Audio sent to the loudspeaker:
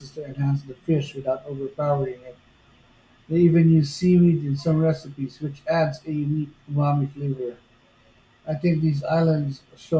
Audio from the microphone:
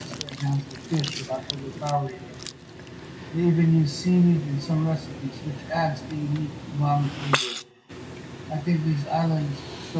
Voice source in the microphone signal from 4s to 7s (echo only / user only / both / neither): echo only